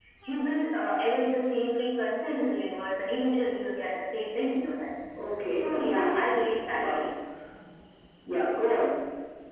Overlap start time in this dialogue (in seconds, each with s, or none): 5.5 s